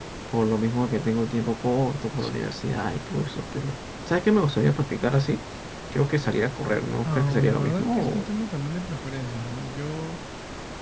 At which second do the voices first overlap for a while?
7.0 s

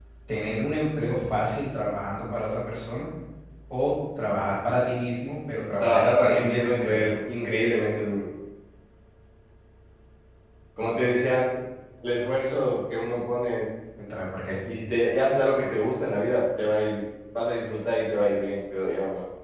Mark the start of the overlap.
5.8 s

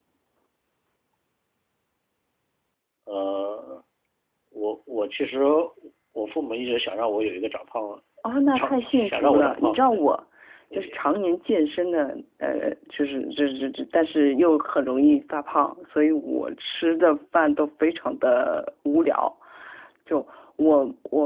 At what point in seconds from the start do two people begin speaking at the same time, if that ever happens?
8.5 s

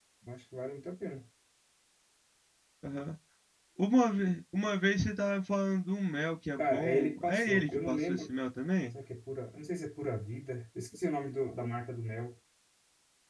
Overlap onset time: 6.6 s

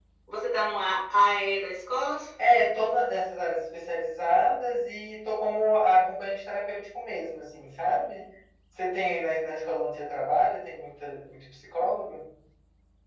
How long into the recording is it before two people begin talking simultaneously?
none

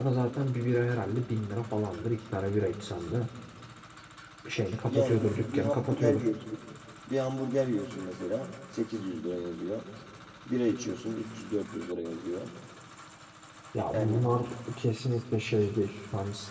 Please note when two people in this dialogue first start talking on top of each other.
4.9 s

